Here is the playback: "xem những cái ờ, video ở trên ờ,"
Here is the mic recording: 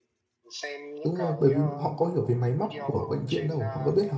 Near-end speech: present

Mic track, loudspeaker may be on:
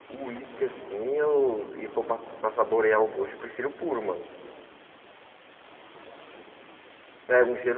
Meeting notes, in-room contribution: present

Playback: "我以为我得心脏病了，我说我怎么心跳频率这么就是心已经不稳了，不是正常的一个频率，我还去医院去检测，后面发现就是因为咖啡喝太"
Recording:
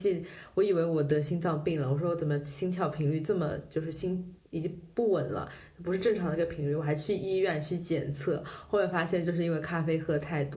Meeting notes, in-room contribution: none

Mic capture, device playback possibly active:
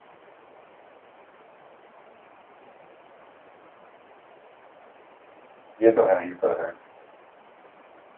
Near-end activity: present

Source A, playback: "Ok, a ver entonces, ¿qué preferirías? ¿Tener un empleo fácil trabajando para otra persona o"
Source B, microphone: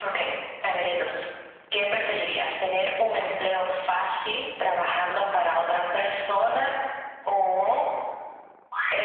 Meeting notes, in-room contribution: none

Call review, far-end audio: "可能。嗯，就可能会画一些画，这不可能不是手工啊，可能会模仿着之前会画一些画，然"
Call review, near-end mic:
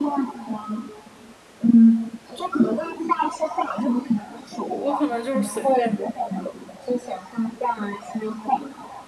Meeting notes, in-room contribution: present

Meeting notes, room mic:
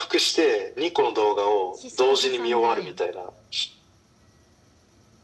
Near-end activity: present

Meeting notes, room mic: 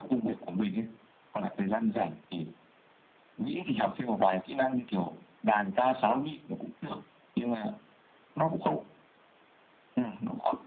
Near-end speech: none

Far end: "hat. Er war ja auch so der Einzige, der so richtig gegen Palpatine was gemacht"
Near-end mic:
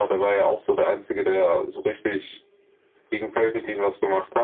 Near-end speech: none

